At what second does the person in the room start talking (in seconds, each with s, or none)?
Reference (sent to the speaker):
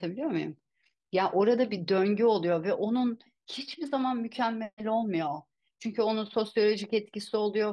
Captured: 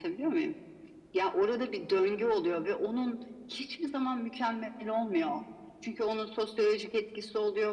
none